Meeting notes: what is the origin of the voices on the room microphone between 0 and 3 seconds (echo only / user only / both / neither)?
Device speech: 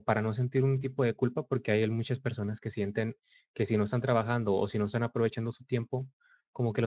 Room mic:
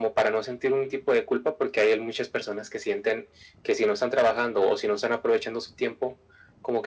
echo only